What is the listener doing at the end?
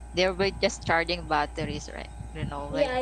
taking over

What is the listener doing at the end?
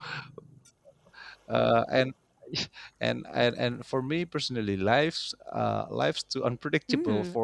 taking over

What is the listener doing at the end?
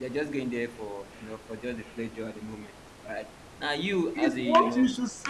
taking over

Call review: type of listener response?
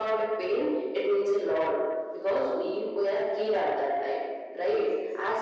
listening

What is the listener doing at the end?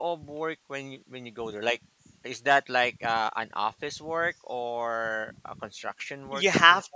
taking over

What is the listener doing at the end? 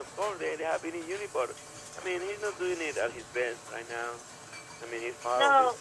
taking over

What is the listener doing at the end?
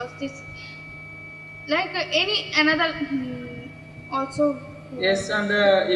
taking over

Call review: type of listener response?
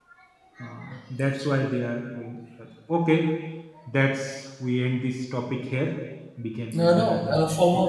taking over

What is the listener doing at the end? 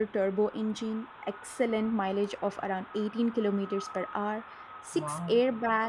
listening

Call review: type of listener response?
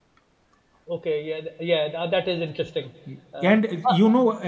taking over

